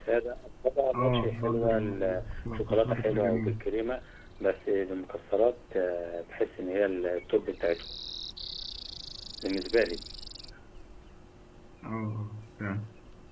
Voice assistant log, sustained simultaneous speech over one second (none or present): present